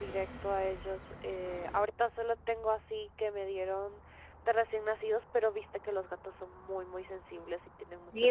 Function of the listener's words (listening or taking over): taking over